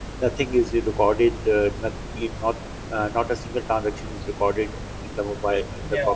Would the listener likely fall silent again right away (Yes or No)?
No